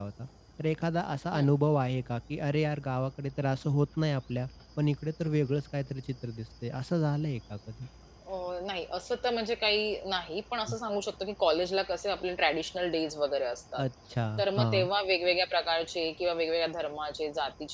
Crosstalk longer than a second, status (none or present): none